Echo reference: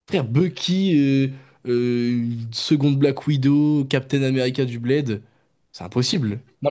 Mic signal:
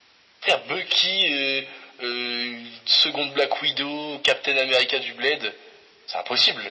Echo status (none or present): present